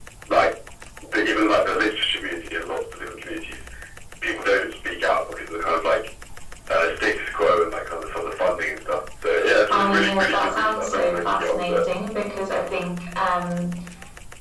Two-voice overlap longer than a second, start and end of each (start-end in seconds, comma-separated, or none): 9.7-11.8